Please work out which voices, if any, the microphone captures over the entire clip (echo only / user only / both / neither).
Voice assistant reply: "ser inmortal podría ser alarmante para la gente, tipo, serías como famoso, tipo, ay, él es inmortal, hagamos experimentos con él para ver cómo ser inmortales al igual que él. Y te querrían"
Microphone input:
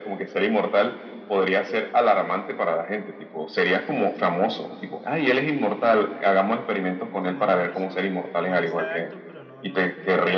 both